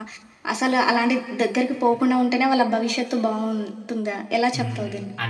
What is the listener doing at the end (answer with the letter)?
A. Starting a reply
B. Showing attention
A